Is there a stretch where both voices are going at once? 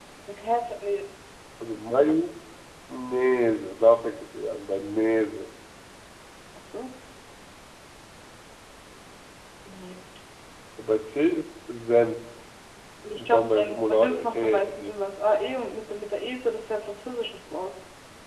Yes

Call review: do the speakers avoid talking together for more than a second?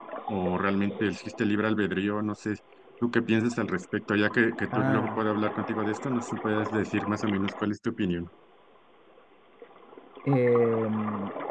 Yes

